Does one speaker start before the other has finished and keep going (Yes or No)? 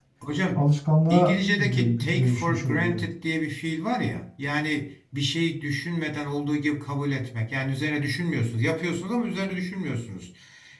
Yes